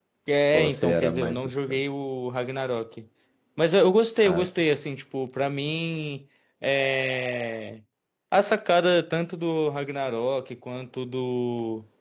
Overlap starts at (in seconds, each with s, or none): 0.5 s